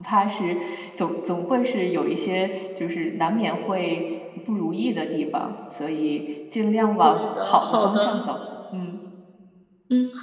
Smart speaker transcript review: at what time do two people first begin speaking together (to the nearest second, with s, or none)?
7 s